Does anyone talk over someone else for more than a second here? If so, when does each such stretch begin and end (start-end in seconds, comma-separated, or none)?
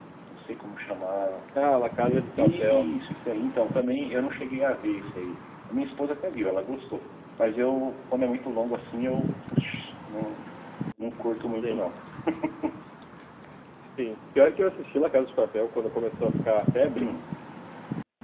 none